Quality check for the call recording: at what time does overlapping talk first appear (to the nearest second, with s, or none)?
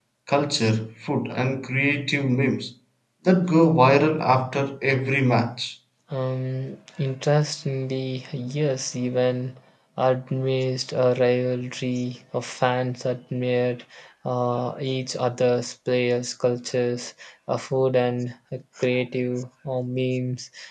none